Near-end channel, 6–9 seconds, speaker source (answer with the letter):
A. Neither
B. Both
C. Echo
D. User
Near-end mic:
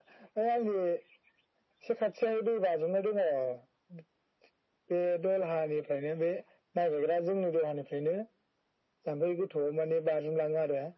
C